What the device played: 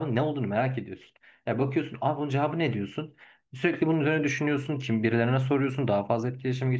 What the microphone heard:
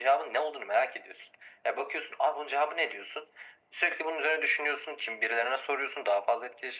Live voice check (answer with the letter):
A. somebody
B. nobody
B